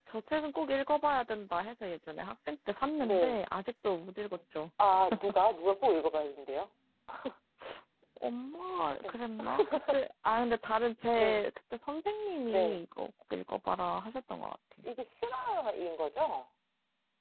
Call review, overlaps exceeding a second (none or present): none